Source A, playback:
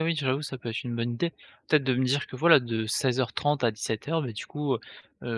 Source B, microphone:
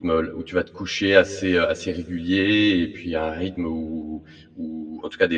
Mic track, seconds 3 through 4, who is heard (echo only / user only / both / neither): user only